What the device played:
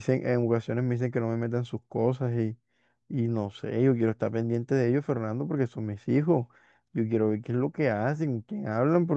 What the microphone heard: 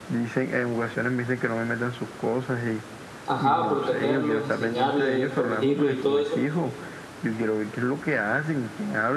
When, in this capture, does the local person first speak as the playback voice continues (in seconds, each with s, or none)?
3.2 s